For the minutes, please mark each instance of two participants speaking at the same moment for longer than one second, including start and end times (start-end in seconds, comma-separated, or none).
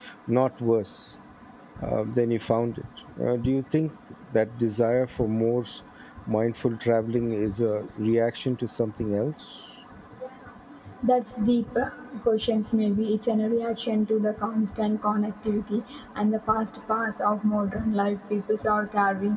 none